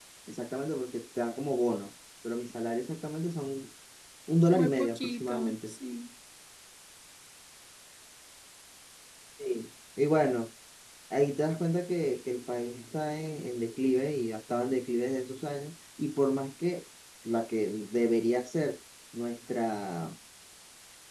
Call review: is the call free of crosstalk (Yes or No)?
No